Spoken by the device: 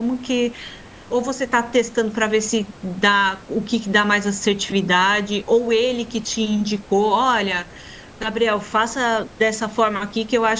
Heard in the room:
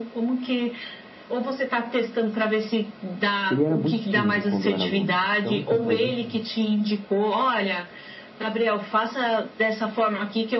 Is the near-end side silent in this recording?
No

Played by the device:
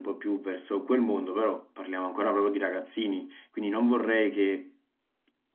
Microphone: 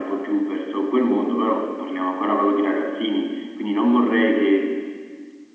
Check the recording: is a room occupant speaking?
No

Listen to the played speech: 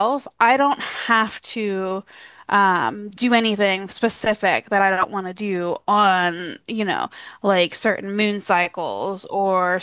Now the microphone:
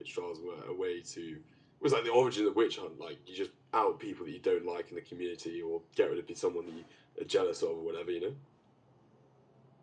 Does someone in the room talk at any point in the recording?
Yes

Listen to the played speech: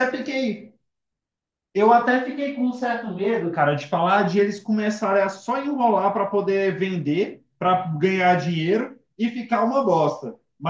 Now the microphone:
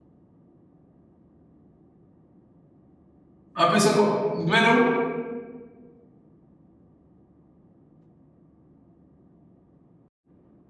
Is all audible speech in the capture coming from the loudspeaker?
No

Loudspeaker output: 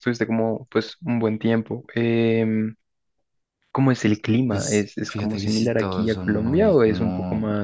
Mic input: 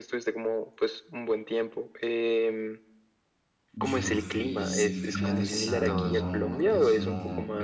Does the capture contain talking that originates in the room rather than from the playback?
Yes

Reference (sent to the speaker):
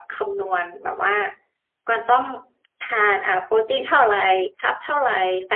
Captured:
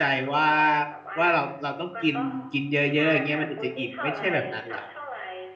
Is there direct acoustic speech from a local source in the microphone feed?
Yes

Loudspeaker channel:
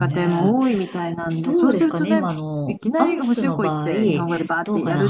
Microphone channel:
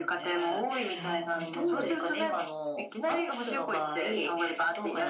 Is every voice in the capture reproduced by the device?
No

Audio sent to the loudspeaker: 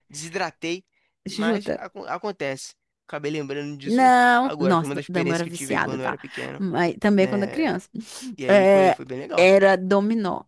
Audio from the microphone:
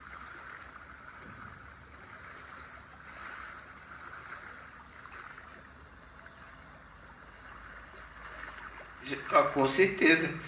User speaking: Yes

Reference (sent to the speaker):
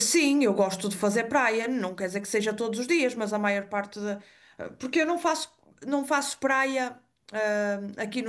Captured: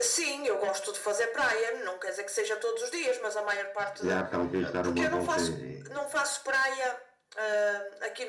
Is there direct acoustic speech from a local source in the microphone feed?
Yes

